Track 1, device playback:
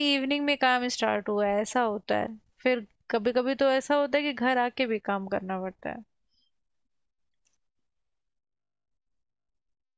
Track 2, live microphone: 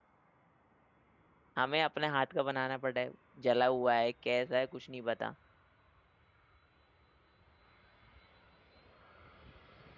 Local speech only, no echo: हमें अपने हाथ का बनाना पड़ा है जला हुआ है कैसा है कुछ नहीं पता

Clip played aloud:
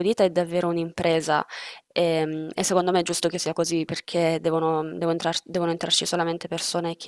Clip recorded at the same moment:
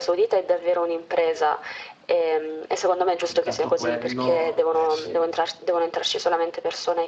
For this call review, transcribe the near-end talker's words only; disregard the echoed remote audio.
soltanto quello, eh sì,

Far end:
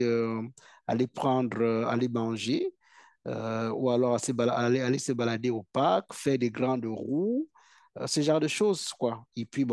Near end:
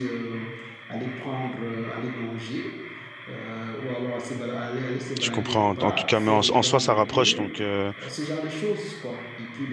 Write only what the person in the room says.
je comprends. En tout cas, mais en, en soi, ça rapproche, donc euh,

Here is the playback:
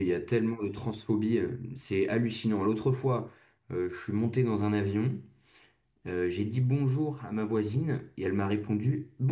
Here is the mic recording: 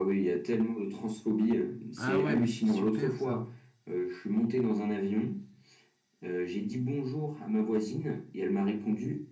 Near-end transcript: Ah ouais, mais c'est super ça.

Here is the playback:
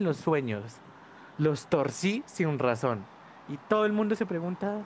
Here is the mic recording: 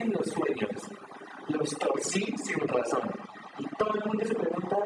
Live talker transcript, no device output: none

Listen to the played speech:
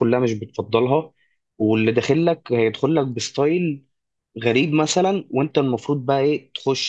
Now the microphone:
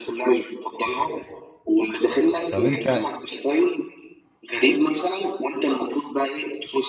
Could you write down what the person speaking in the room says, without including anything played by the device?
طب انت

